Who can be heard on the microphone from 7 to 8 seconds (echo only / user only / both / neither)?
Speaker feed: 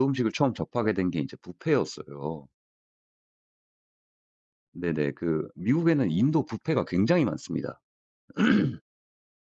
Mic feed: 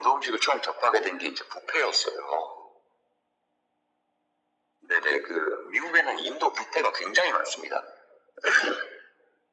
echo only